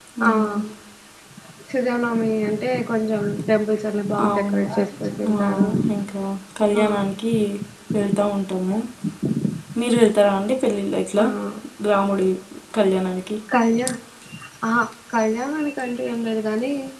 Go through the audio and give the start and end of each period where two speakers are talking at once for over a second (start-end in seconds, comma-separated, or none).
none